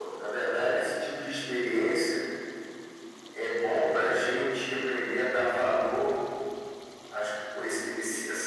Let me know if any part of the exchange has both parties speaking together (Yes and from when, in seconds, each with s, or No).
No